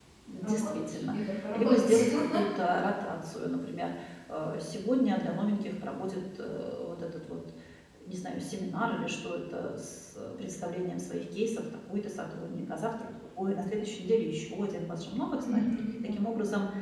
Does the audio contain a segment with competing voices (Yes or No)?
Yes